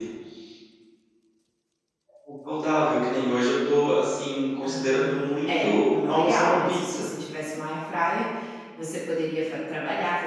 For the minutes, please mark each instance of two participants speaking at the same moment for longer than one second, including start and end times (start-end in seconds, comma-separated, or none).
4.6-7.0